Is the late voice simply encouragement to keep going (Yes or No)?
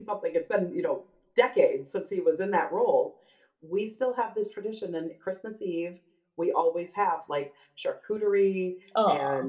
Yes